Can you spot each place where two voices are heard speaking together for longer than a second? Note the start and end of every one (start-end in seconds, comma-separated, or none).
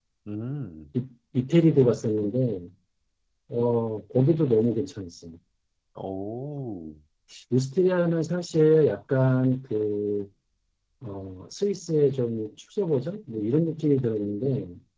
none